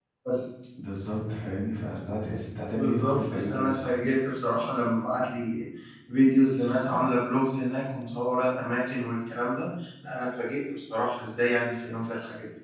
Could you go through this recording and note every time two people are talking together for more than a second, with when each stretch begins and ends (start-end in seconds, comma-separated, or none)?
2.7-3.9